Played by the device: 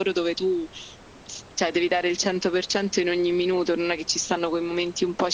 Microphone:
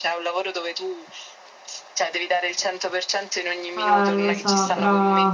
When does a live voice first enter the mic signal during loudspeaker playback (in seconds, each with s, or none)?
3.8 s